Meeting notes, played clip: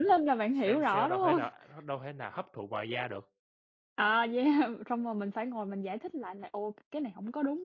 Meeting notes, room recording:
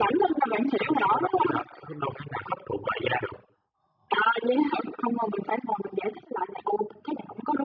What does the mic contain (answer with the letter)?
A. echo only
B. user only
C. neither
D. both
A